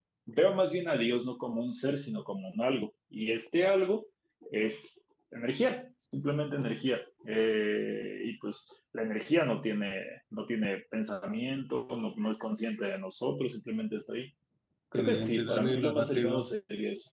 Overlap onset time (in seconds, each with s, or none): 15.0 s